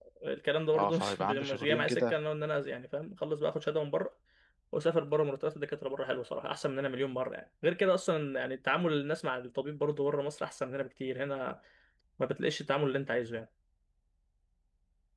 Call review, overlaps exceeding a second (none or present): present